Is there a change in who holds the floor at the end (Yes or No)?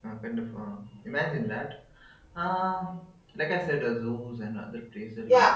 Yes